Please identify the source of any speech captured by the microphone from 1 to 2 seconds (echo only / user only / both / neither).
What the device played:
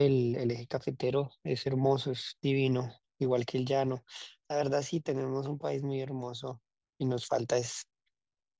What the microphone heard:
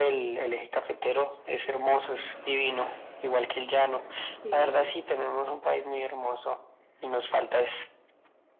echo only